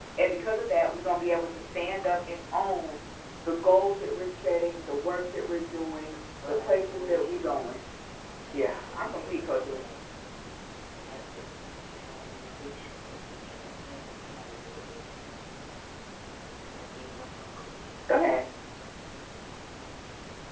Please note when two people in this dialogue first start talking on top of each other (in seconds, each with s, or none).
6.5 s